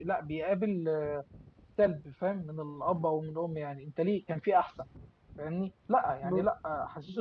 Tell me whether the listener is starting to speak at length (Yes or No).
No